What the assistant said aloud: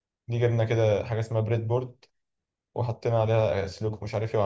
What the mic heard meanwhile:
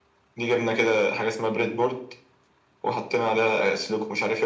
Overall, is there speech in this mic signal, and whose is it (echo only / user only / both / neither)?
echo only